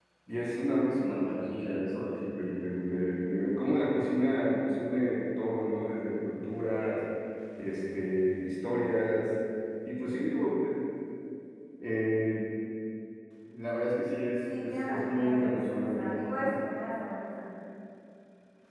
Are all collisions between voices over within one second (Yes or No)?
No